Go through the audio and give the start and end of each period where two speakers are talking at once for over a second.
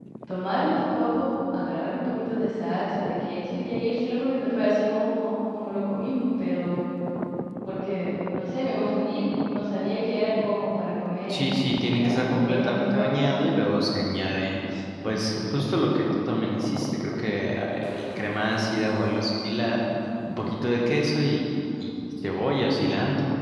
12.0-13.3

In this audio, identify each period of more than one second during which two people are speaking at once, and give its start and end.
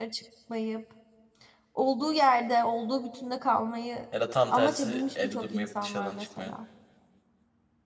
4.5-6.5

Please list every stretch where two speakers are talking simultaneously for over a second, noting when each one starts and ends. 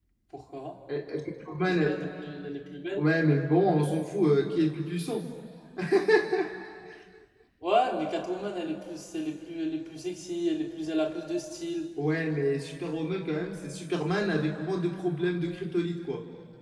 none

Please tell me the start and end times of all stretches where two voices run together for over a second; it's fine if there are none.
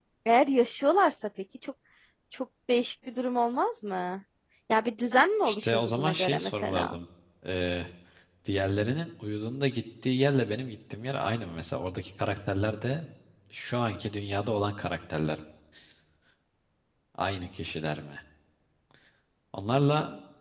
5.5-7.0

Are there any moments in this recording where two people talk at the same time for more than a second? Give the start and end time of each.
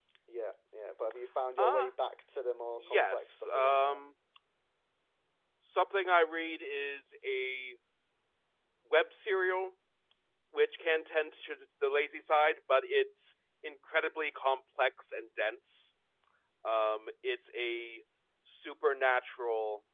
2.8-4.0

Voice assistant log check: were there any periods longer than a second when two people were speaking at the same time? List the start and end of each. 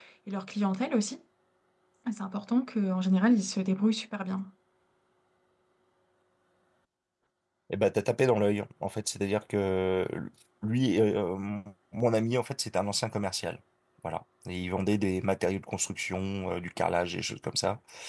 none

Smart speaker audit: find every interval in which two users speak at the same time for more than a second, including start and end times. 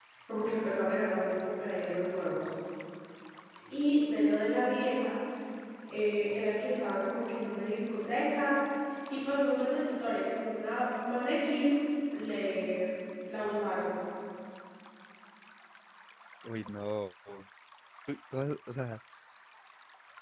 none

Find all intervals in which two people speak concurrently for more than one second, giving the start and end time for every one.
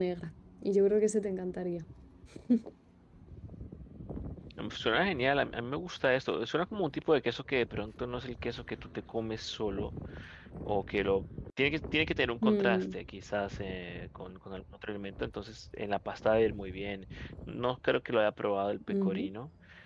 none

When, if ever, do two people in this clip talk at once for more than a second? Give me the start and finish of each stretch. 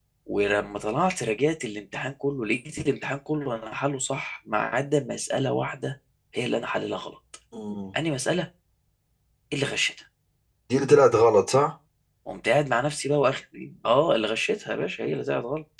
none

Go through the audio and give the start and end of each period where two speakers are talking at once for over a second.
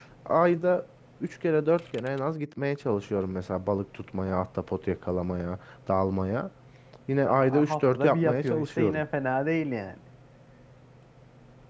7.2-9.0

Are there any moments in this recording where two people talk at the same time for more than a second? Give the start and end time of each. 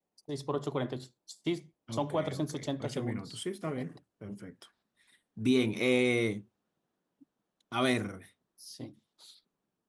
1.9-3.4

